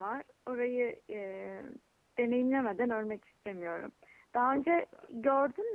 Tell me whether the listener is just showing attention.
Yes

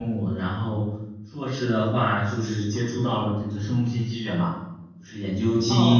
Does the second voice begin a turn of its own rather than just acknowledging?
Yes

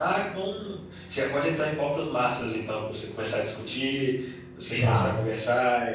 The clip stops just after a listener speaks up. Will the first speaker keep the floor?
Yes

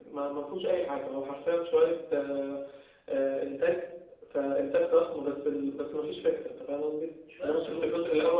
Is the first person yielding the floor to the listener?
No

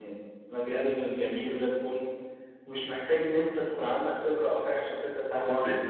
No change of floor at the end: No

